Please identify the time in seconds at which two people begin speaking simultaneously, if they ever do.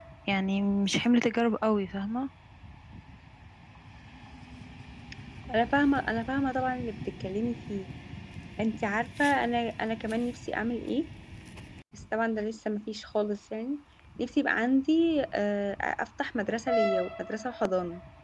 none

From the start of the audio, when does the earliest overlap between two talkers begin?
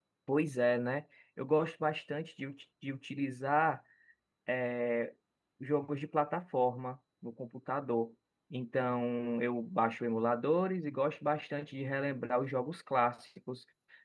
none

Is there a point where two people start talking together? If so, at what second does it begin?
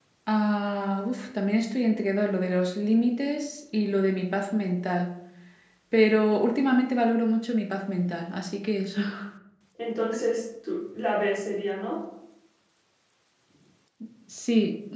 none

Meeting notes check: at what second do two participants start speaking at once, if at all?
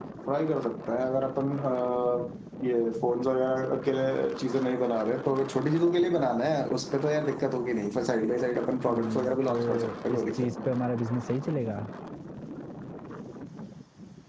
8.9 s

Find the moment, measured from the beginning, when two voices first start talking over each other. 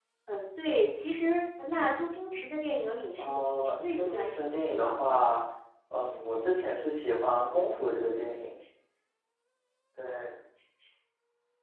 3.2 s

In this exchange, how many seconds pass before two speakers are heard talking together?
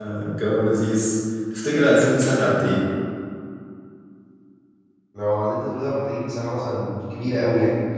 none

